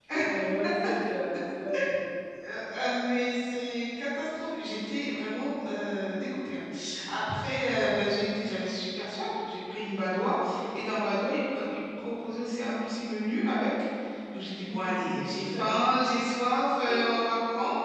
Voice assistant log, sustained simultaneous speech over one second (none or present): none